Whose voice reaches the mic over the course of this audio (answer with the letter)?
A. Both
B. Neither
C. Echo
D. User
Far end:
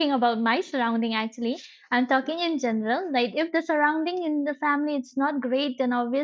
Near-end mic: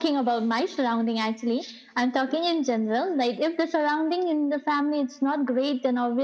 C